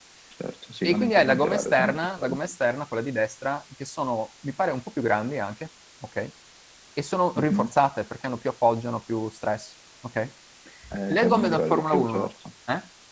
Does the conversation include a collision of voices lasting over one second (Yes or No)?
Yes